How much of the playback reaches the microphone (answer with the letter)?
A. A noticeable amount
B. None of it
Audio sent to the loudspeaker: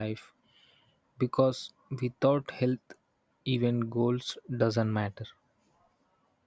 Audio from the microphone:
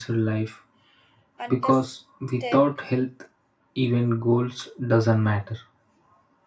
A